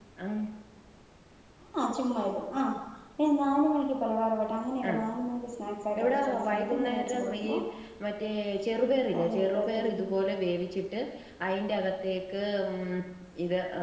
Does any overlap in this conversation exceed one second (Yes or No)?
Yes